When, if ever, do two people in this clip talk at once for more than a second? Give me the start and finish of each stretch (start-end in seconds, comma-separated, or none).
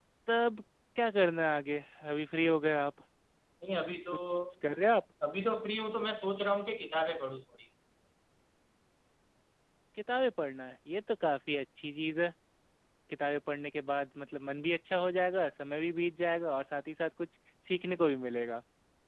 none